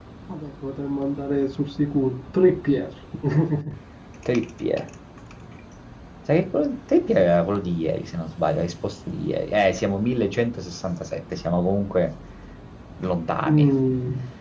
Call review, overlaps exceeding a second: none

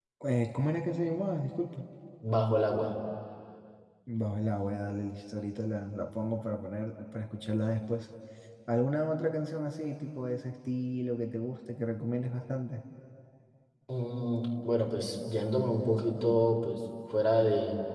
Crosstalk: none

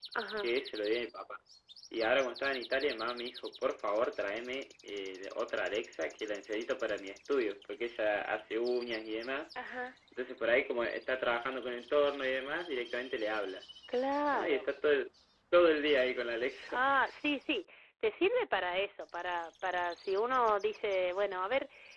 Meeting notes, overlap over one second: none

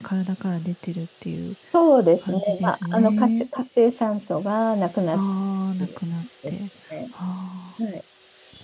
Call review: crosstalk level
present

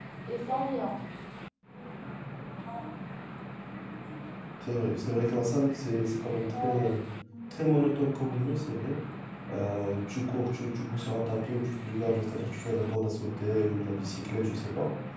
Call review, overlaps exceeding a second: none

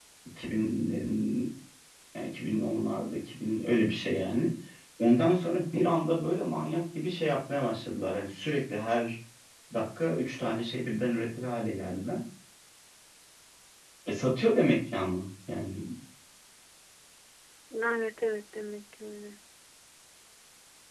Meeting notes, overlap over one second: none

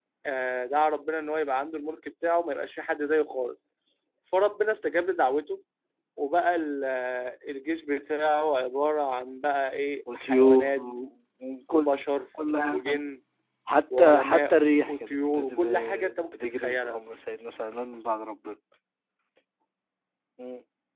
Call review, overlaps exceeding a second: present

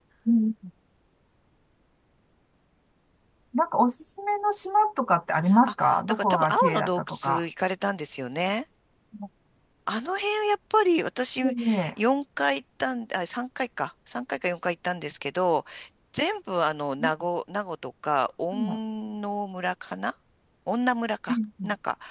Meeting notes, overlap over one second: present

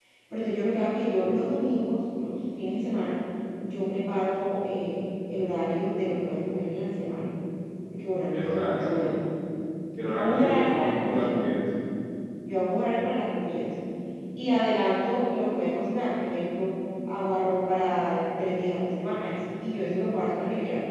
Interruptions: present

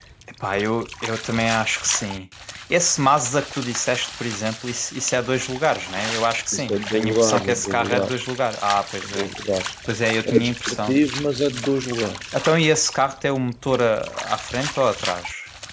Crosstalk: present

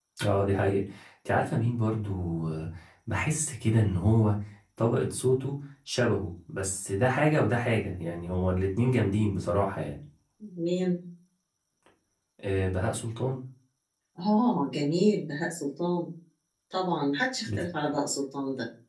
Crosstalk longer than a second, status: none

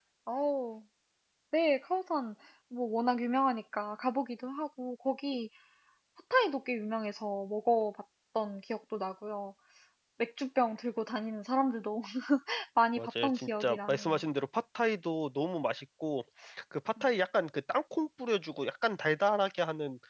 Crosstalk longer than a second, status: present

